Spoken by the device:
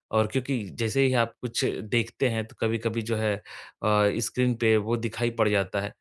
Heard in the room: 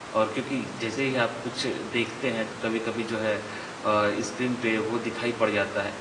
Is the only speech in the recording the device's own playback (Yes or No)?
Yes